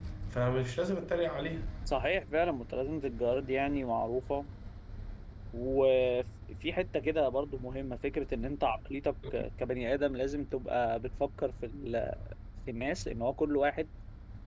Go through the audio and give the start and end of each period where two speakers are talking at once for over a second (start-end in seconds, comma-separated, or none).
none